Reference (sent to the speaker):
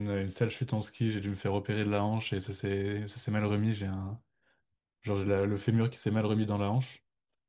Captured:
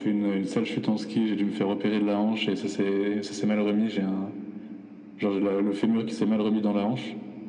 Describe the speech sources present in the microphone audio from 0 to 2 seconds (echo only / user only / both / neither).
echo only